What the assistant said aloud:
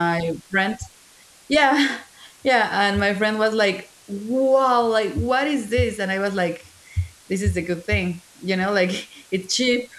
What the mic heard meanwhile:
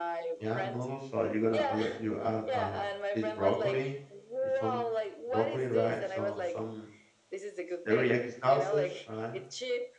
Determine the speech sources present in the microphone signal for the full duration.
both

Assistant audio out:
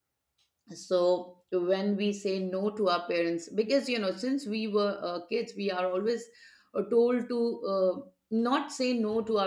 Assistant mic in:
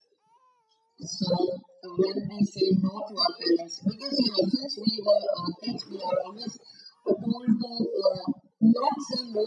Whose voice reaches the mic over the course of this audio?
echo only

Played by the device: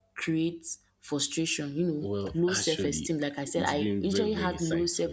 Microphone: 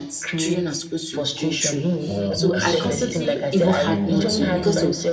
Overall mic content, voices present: both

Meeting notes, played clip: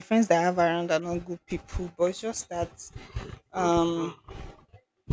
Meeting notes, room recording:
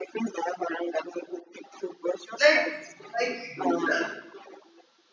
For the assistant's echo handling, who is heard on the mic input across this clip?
both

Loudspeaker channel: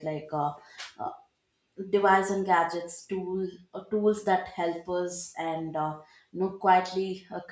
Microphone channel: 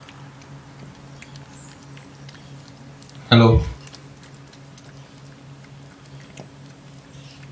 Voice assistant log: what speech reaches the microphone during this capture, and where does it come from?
user only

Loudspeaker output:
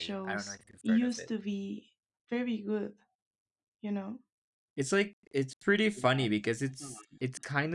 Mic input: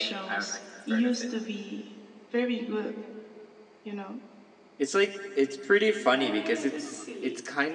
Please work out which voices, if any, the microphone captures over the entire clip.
both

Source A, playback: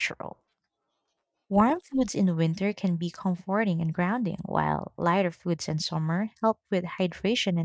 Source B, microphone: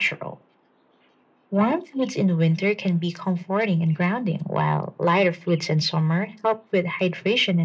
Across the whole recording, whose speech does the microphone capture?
echo only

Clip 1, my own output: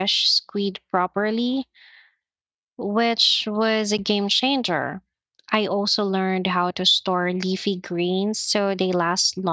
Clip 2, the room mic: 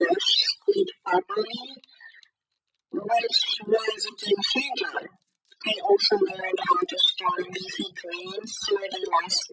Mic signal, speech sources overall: echo only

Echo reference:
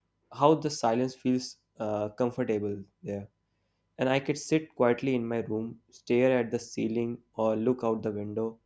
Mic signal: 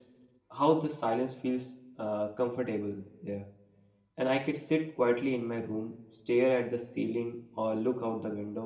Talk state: echo only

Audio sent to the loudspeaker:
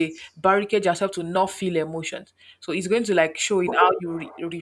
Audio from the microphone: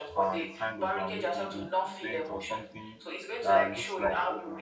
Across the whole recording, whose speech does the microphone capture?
both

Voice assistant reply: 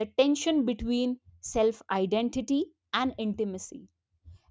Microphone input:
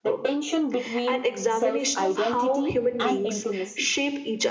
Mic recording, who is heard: both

